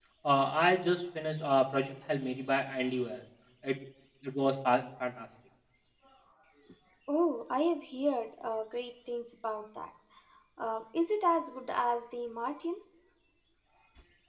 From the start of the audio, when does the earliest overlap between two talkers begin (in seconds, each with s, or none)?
none